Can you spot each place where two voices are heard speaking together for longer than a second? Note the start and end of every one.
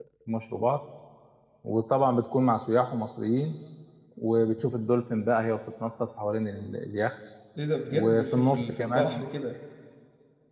7.9-9.2

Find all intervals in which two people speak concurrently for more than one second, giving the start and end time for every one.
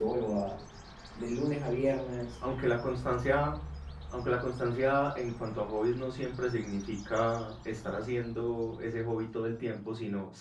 none

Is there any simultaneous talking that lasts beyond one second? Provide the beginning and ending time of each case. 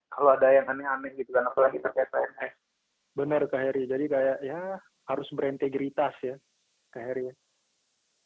none

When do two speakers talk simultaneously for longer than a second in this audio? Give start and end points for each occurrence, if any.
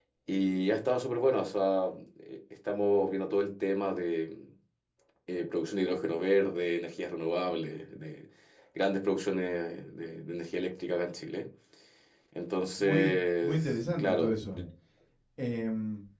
12.8-14.6

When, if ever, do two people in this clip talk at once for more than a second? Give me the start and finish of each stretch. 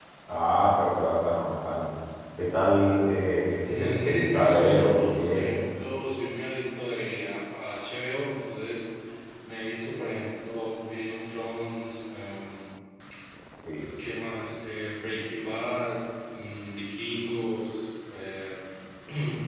3.7-5.5

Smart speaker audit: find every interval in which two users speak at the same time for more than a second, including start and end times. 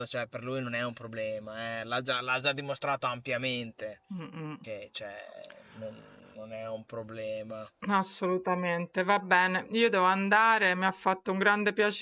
none

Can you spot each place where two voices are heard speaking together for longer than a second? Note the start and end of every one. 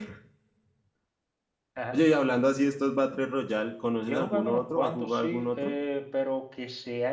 4.0-5.7

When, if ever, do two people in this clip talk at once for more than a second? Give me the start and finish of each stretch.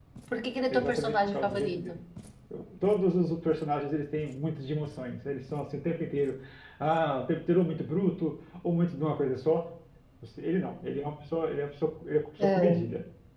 0.7-2.0

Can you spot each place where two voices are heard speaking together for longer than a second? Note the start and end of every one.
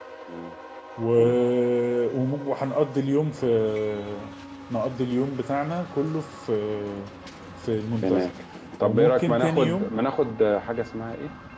8.8-10.0

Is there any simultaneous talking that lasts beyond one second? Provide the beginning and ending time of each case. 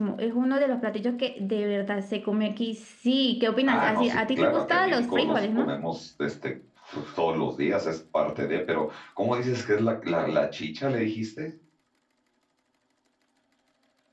3.7-5.8

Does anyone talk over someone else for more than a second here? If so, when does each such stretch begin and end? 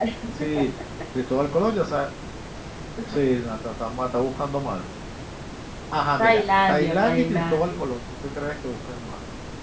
6.2-7.7

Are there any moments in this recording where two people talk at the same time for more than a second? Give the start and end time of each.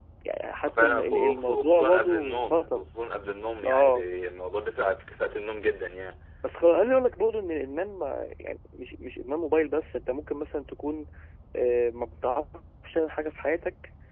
0.8-2.9

